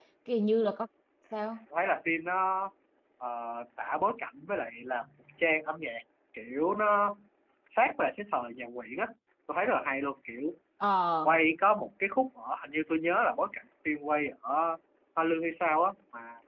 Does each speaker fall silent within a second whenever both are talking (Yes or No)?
Yes